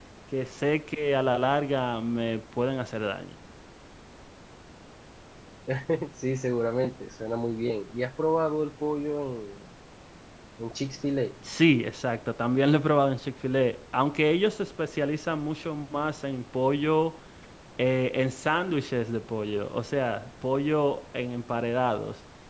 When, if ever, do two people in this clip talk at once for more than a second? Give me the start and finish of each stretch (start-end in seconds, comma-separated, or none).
none